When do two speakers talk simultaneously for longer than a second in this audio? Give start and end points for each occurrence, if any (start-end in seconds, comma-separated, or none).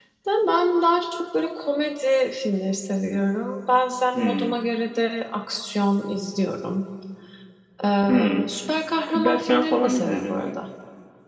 9.1-10.6